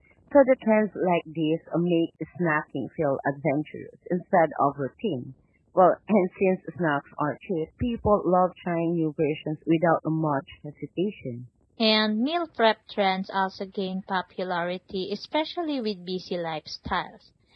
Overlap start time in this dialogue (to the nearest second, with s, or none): none